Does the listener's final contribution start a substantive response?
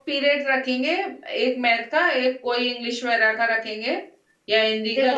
Yes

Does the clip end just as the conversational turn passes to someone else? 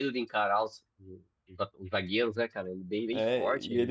Yes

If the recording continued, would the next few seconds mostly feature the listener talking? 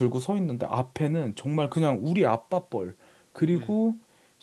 No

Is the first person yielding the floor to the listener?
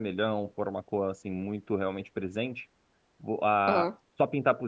No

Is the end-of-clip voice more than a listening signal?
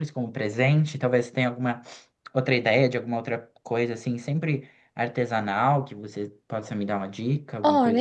Yes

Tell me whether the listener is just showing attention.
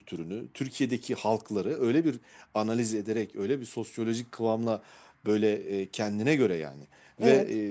Yes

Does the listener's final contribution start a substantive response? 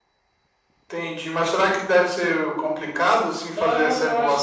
Yes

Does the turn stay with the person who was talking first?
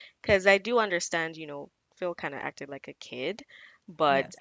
Yes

